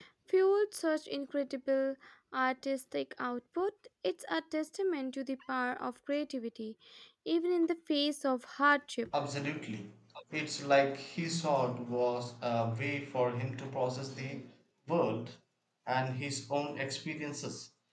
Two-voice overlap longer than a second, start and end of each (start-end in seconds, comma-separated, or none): none